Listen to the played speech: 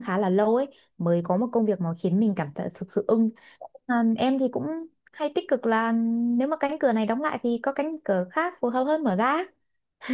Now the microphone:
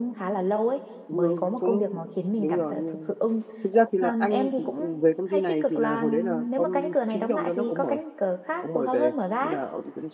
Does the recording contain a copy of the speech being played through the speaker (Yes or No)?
Yes